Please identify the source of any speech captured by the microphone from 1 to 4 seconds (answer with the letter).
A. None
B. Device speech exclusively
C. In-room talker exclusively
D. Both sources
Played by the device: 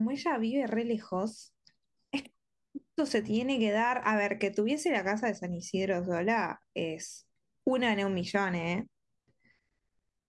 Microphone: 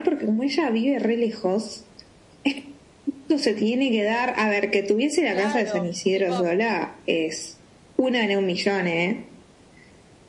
B